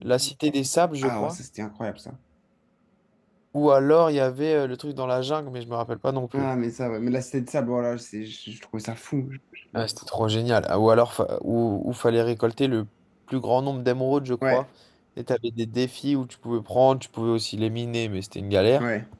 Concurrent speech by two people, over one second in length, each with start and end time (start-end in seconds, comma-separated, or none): none